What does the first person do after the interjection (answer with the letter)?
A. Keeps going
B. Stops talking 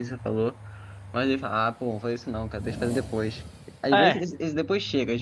A